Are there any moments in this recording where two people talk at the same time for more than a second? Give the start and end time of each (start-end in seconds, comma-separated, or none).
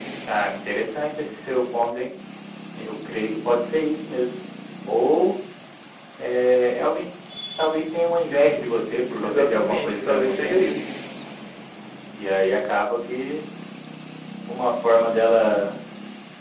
9.2-10.7